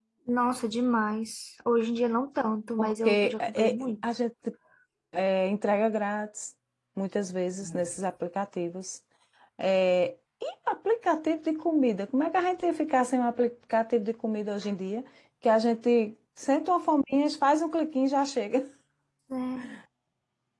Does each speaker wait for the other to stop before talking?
No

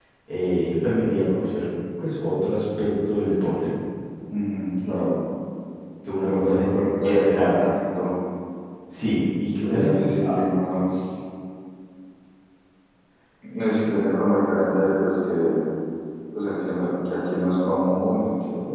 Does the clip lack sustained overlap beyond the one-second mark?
No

